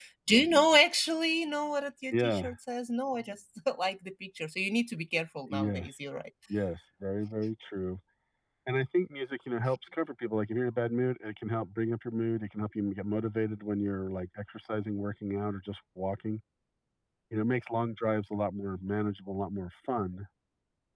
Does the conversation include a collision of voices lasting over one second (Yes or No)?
No